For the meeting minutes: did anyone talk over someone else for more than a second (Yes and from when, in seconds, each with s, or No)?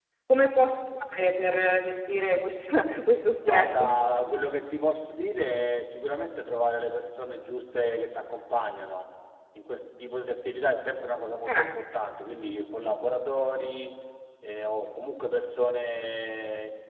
No